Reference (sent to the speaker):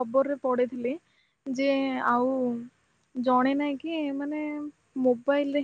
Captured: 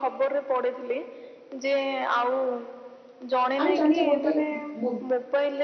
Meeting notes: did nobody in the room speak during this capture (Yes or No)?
No